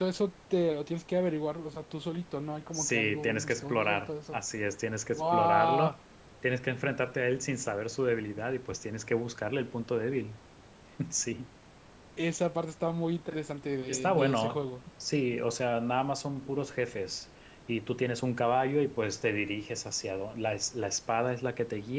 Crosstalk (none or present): present